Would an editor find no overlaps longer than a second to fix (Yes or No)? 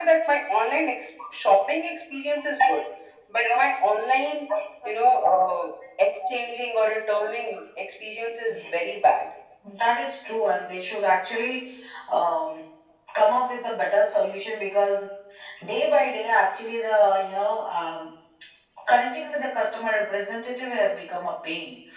Yes